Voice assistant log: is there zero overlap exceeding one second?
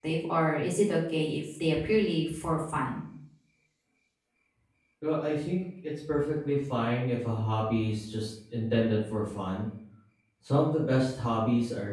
Yes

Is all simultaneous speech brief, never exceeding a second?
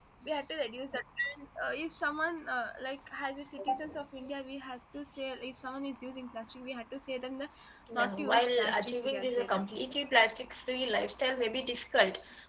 No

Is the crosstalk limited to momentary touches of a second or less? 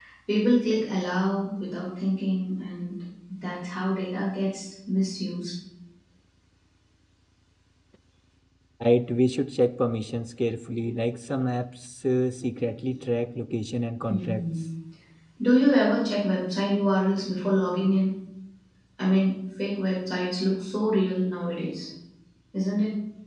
Yes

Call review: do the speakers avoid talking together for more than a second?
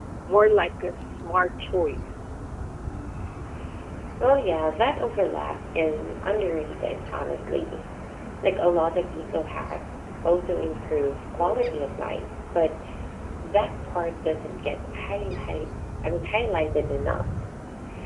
Yes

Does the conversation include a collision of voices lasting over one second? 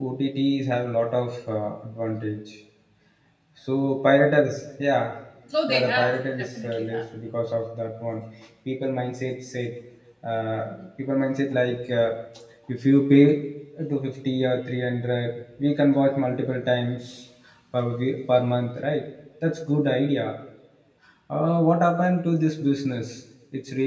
Yes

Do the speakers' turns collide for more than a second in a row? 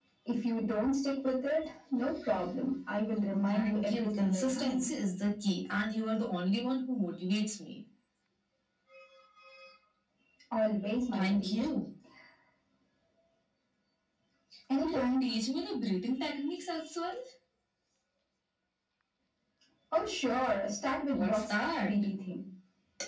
Yes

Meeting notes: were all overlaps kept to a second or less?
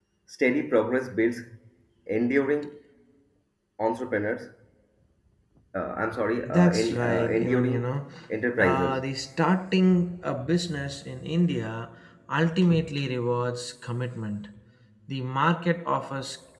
No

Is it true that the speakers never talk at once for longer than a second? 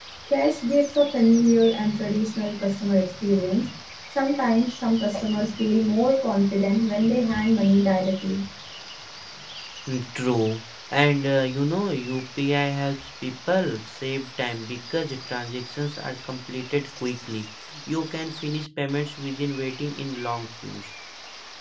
Yes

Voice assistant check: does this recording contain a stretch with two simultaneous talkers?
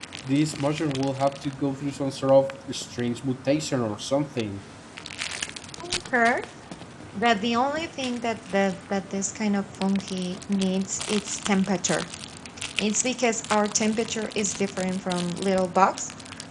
No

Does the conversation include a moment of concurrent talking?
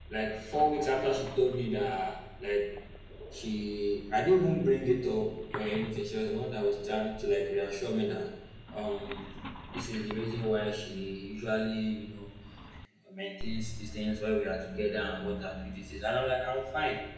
No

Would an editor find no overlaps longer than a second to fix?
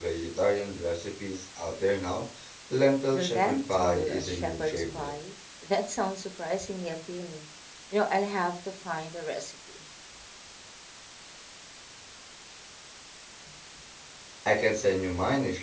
No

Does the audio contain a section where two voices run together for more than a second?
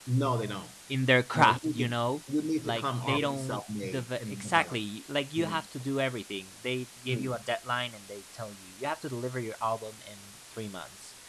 Yes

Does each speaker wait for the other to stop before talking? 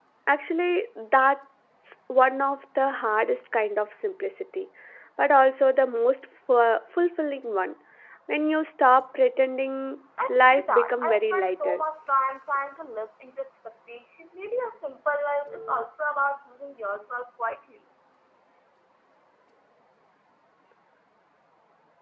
No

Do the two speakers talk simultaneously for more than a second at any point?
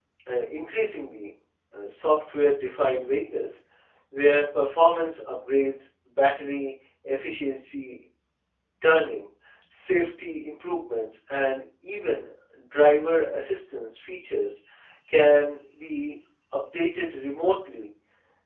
No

